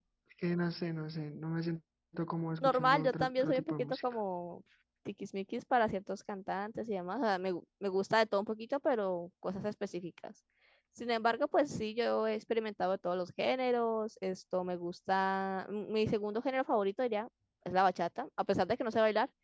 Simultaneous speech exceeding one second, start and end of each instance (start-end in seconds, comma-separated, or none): 2.6-4.0